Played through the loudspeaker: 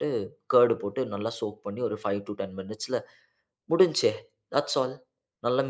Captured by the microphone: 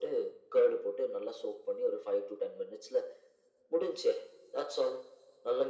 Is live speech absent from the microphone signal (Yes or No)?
Yes